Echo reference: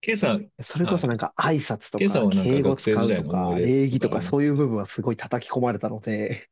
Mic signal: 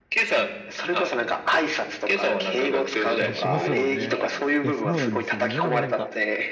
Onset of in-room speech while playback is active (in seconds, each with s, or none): 3.2 s